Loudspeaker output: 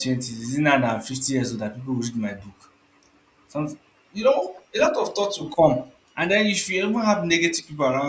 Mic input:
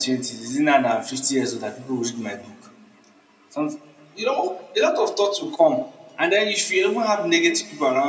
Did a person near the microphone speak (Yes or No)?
No